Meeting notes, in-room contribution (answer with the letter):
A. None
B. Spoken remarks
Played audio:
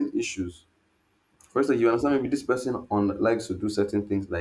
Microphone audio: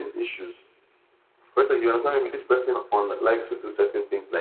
A